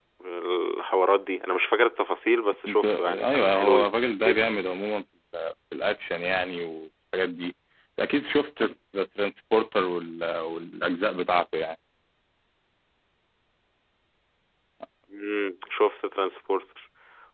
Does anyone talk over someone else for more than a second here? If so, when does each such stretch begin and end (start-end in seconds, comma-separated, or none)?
2.7-3.9